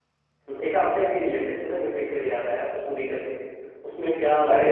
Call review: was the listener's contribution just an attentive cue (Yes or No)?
No